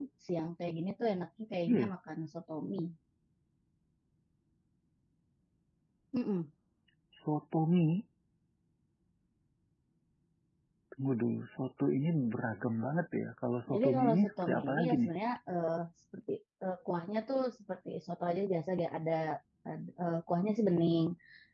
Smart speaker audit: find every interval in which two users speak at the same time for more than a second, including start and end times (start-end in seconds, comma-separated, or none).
13.7-15.1